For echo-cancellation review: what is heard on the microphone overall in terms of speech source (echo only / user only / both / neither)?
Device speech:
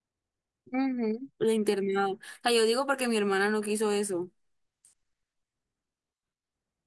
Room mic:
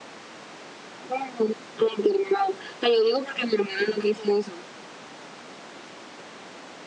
echo only